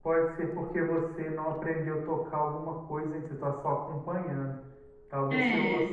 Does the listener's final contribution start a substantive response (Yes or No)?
No